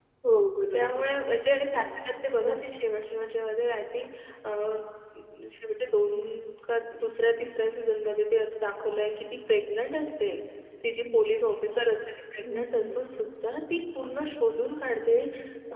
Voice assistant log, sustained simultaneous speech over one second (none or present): none